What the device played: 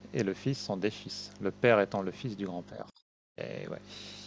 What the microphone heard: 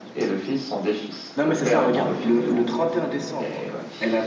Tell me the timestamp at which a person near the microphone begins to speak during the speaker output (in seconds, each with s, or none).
1.4 s